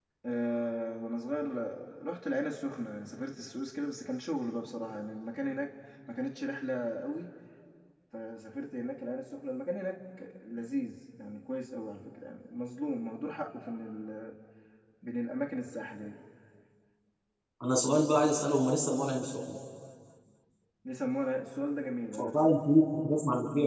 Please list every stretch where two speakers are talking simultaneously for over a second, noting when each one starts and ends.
none

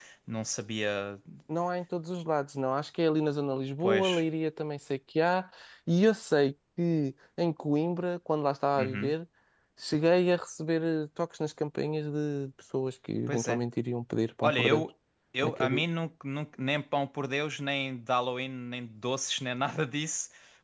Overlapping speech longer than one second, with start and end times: none

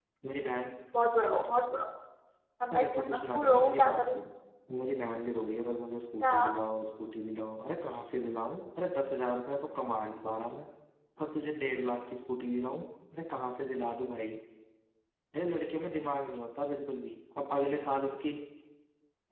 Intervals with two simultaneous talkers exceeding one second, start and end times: 2.7-4.2

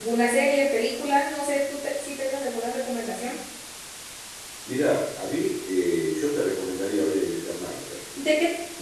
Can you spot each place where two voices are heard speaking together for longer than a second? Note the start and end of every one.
none

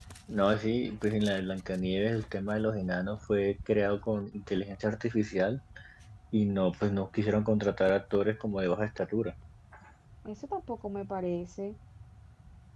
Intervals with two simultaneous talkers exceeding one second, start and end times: none

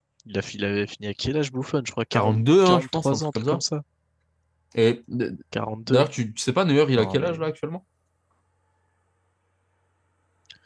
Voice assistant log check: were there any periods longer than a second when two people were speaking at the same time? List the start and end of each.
2.1-3.6

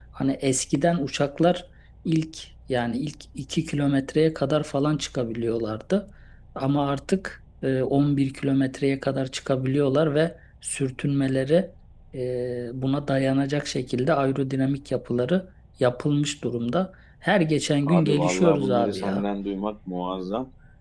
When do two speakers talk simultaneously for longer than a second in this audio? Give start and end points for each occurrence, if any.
17.8-19.2

